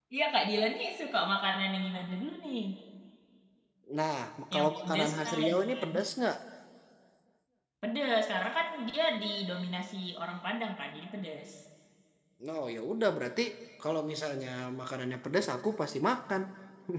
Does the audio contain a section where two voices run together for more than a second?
Yes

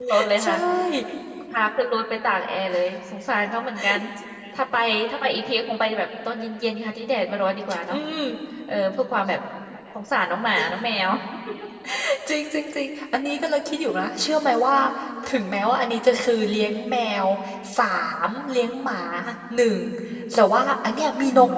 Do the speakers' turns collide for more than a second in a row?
No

